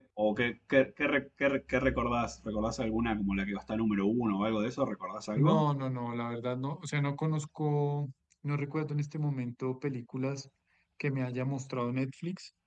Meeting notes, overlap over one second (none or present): none